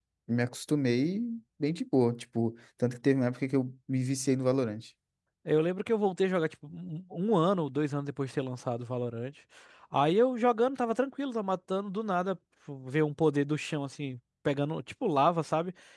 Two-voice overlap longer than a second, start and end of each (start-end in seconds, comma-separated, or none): none